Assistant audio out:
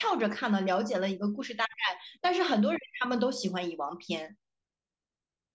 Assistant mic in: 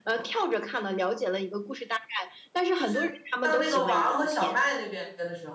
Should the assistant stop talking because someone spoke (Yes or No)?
Yes